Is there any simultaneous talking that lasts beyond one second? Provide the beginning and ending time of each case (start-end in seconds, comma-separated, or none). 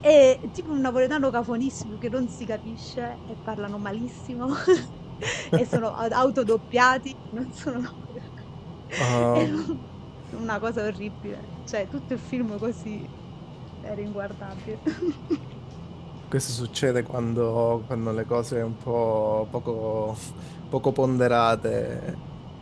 none